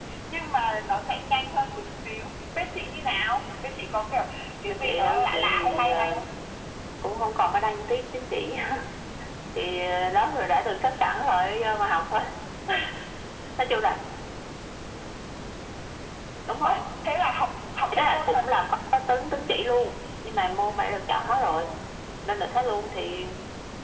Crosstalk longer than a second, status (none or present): present